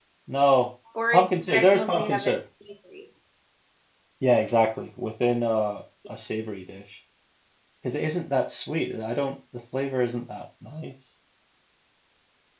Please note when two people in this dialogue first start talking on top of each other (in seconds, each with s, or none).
1.1 s